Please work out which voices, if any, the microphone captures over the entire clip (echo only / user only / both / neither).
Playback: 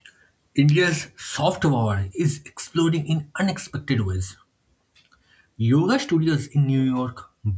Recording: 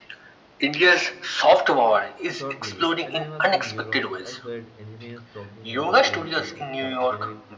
both